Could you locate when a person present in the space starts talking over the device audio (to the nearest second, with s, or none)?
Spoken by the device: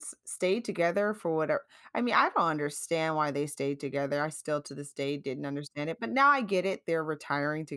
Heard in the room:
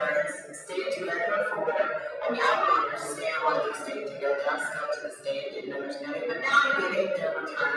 none